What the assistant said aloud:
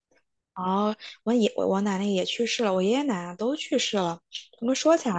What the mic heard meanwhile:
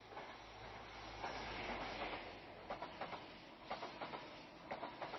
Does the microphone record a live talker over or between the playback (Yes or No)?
No